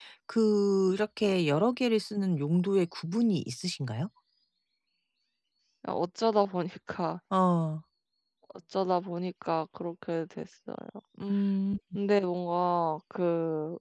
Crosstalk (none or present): none